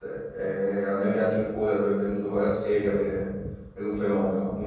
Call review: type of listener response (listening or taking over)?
listening